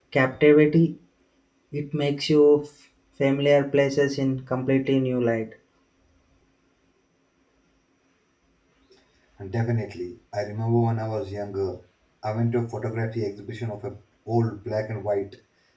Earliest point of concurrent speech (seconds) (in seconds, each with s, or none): none